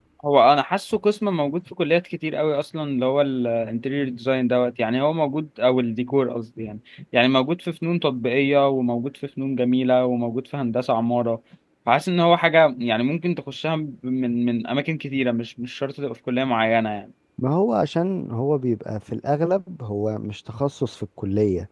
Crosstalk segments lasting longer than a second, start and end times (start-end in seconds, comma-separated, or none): none